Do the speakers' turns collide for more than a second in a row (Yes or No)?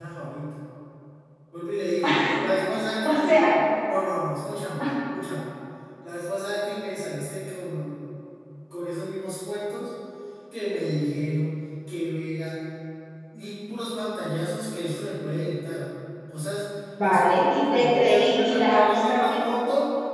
Yes